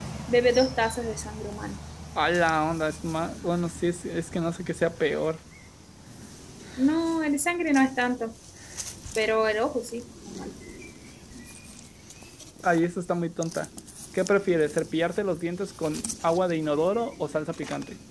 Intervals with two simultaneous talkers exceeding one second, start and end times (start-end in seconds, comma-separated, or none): none